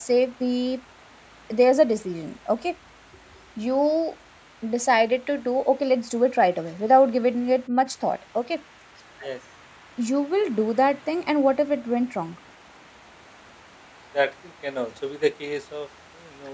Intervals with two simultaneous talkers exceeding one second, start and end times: none

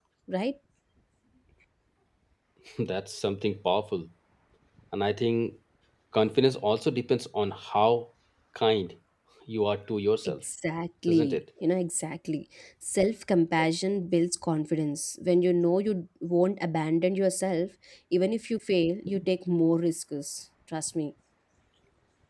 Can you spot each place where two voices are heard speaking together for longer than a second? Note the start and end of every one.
none

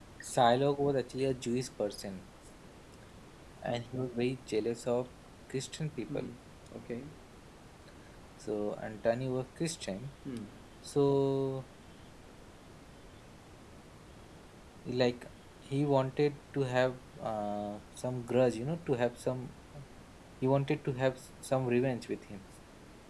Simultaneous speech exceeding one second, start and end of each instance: none

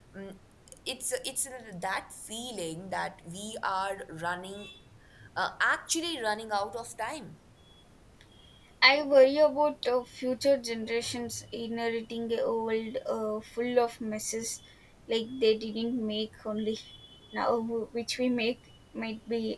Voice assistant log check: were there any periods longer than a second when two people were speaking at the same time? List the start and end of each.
none

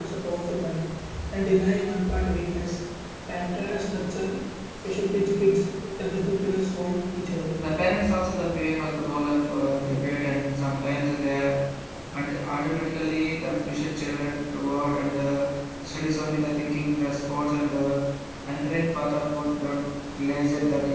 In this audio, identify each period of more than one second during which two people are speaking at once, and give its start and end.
none

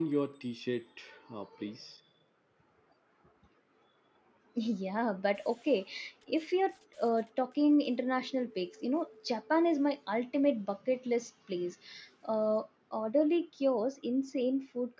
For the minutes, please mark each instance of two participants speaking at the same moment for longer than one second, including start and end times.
none

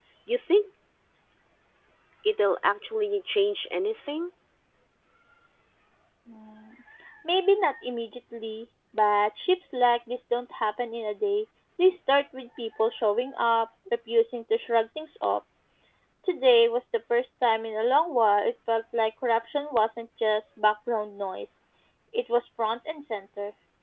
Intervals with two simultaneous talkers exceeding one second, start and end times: none

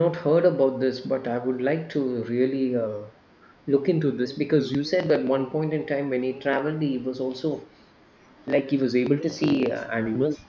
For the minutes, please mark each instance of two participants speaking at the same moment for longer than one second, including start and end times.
none

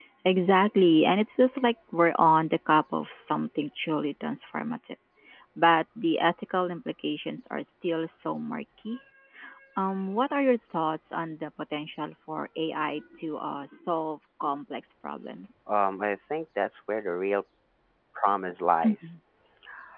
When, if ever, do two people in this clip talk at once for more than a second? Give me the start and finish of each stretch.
none

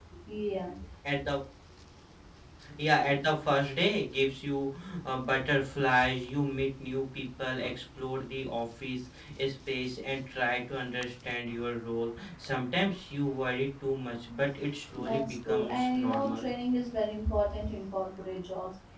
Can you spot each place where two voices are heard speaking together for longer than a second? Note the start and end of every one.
14.9-16.5

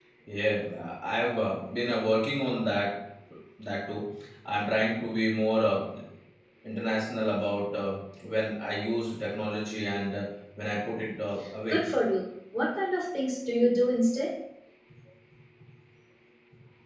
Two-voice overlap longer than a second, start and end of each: none

